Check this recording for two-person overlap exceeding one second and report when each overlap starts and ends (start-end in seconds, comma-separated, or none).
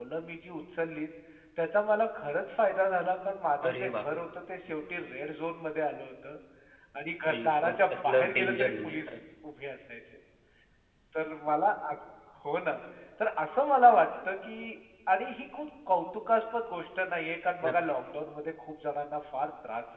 7.3-9.2